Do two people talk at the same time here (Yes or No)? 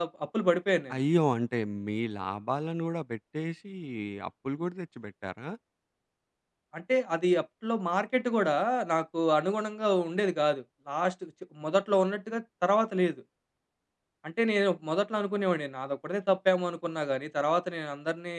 No